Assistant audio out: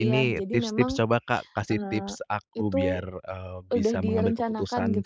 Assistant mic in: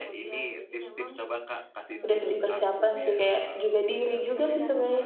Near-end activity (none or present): present